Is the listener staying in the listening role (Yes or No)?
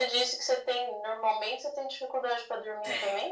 No